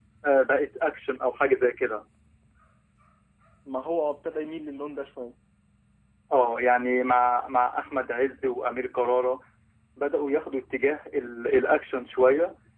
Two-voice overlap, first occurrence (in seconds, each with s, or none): none